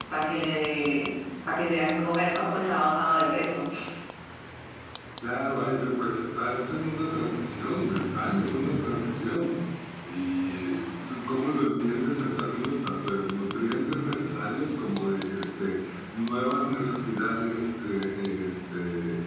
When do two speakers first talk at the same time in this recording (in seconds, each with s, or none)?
none